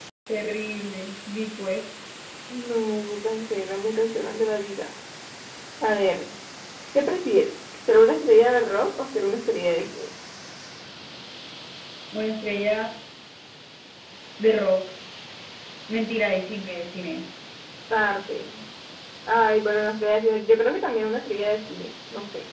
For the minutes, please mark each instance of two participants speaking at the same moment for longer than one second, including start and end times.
none

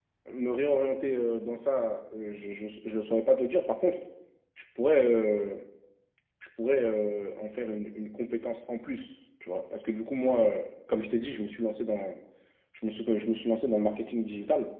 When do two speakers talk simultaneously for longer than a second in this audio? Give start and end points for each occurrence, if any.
none

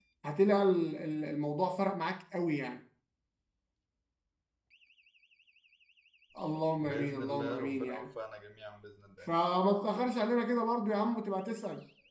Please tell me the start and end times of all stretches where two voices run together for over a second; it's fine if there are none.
6.8-8.0

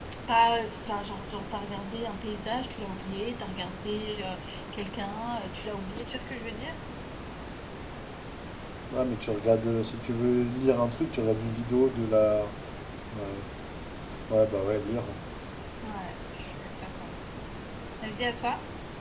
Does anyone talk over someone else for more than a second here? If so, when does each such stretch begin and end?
none

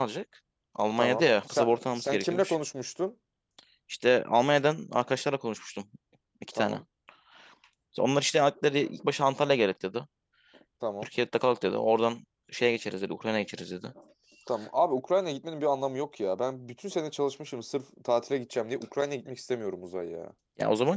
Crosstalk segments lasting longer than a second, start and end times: 1.0-2.6

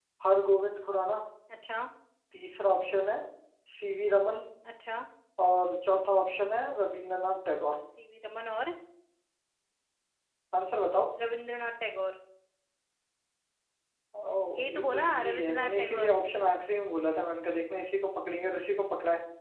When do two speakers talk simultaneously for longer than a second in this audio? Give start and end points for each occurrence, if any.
14.6-16.2

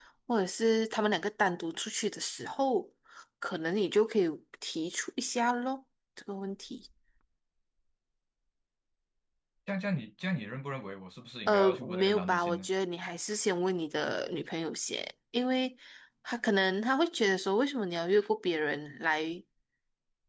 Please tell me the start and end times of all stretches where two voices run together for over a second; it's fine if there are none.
11.5-12.7

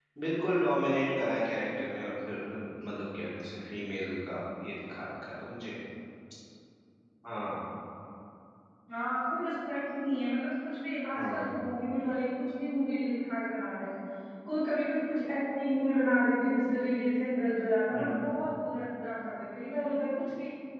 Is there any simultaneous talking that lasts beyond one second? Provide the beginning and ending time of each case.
none

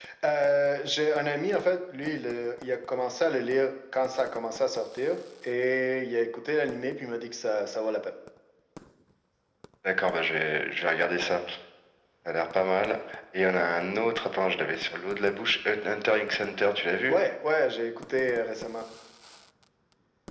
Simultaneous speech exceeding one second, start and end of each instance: none

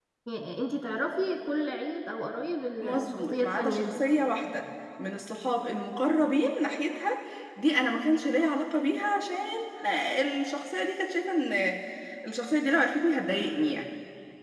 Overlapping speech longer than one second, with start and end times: 2.8-4.0

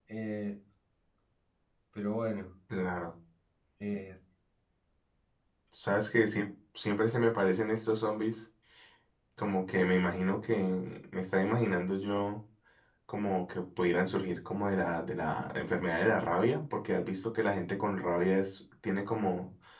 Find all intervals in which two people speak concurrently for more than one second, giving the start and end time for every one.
none

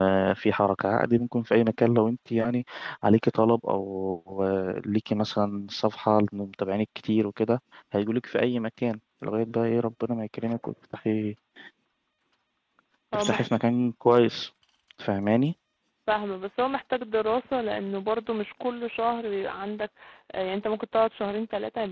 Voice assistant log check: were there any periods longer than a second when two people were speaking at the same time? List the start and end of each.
none

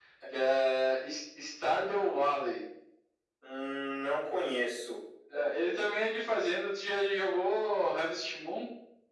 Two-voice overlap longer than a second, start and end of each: none

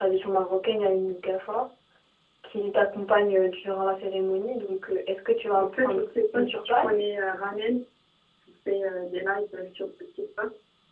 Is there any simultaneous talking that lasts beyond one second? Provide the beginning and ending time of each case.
5.5-7.0

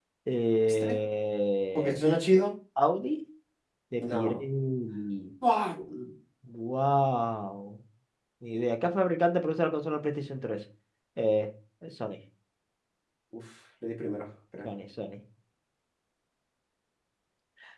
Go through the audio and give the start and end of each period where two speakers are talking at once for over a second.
none

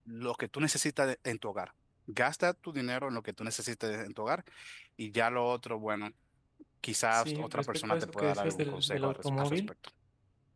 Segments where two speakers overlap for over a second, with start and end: 7.1-9.6

